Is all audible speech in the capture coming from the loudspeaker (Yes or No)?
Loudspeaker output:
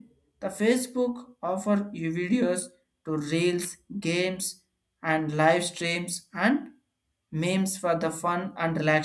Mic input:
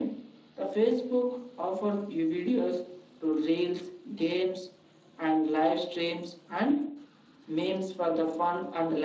Yes